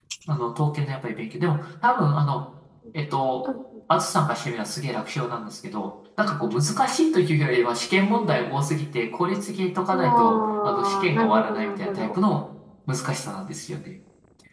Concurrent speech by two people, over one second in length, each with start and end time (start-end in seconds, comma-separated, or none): 9.9-12.1